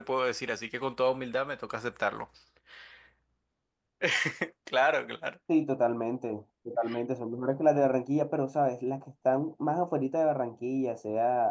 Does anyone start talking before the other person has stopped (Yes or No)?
No